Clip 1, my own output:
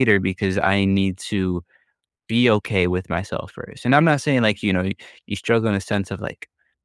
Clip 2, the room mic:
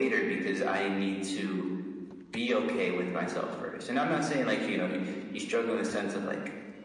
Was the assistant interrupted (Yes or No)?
No